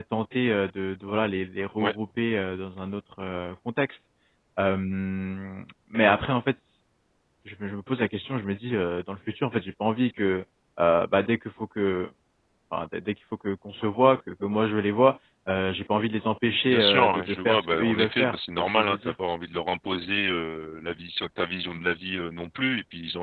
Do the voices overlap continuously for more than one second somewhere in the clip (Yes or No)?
Yes